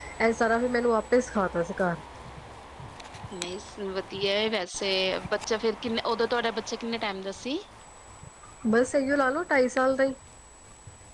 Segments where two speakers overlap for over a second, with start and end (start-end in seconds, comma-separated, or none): none